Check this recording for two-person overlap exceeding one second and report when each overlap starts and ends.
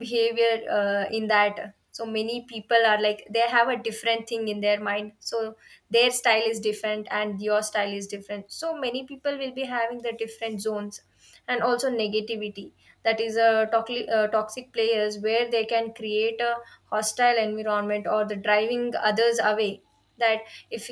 none

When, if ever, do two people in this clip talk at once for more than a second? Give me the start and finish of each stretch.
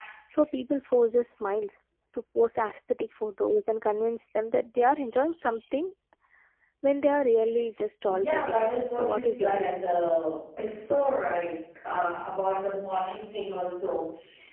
8.1-9.7

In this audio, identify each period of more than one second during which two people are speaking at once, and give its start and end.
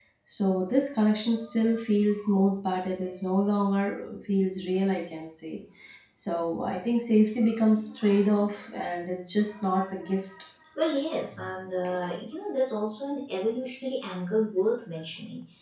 none

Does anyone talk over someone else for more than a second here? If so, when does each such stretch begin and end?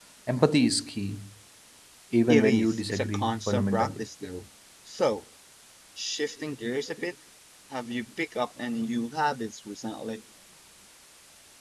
2.3-4.0

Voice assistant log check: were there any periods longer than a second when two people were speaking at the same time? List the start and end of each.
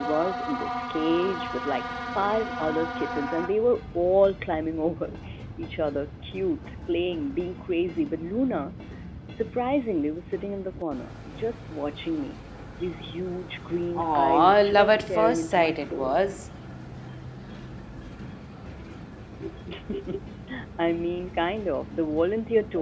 13.9-16.2

